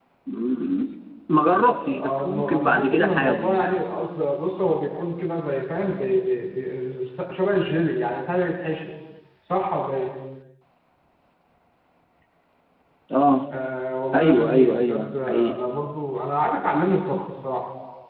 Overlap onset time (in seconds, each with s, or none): 1.7 s